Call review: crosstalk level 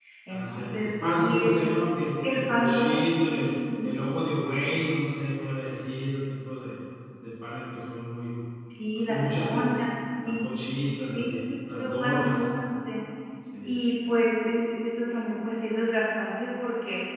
present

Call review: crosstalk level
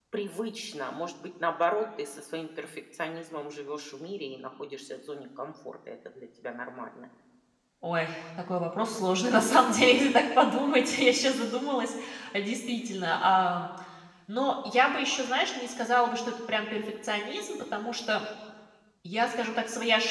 none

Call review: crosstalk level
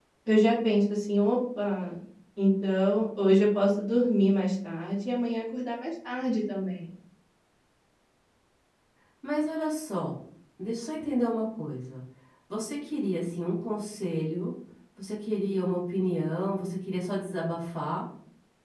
none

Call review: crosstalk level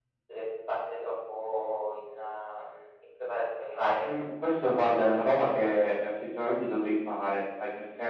none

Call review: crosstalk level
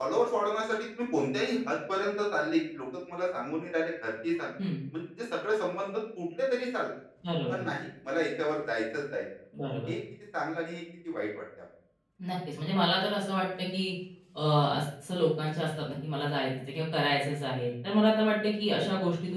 none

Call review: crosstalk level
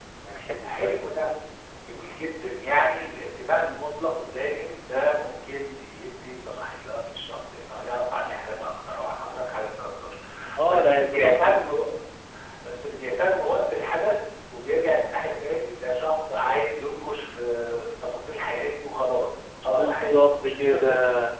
present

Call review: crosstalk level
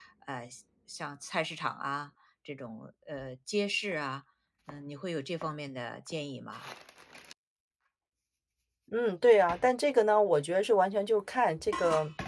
none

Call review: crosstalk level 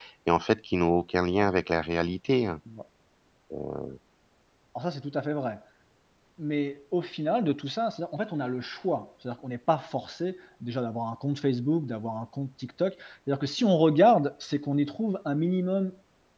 none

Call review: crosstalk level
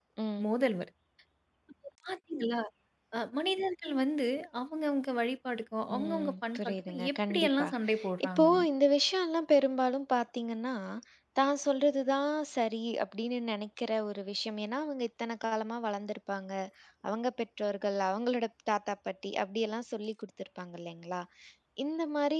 present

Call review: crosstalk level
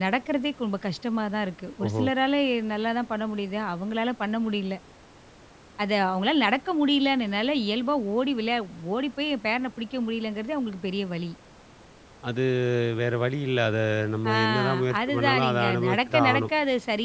present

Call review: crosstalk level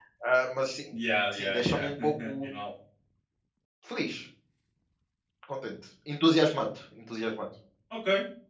present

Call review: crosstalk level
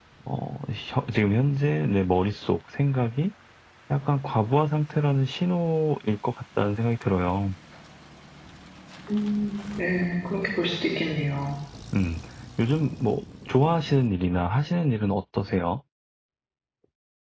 none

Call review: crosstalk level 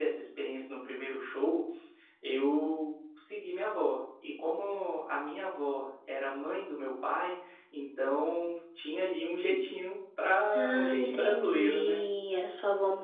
present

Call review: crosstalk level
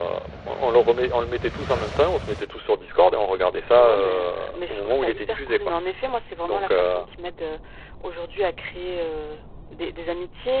present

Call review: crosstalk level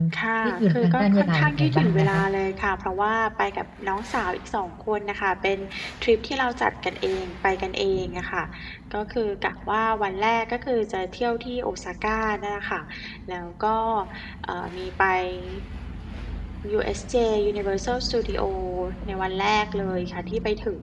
present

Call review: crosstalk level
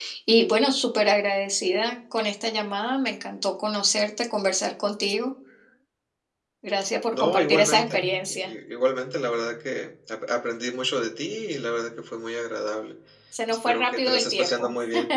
present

